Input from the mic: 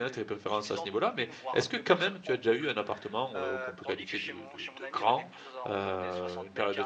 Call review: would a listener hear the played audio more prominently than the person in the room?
No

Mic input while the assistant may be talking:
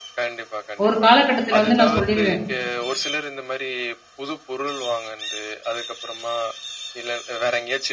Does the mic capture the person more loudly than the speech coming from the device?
Yes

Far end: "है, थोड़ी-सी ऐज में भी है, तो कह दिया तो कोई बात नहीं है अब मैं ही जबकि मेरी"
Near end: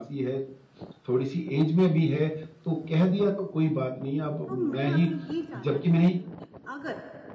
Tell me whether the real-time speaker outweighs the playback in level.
No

